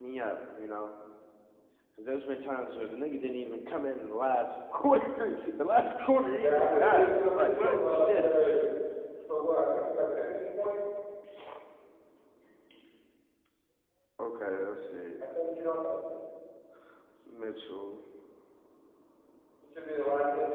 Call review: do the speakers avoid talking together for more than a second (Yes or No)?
No